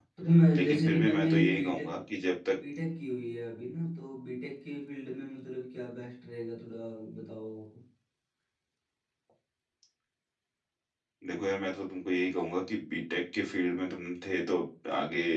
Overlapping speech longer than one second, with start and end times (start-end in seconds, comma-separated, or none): 0.5-1.9